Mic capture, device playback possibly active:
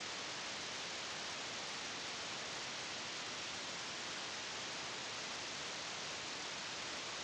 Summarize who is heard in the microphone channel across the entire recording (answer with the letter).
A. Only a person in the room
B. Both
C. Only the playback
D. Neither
D